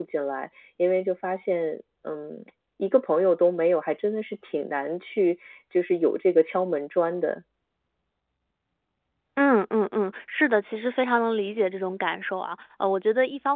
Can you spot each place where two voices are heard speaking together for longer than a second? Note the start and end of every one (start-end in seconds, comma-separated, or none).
none